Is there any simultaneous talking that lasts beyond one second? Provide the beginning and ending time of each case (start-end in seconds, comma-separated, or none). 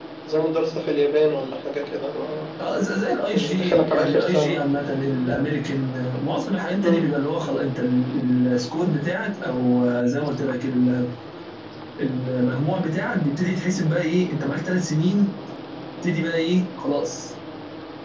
3.3-4.5